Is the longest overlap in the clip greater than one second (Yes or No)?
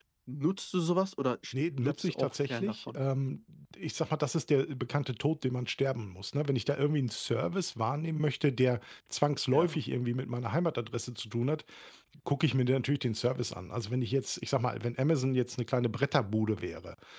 Yes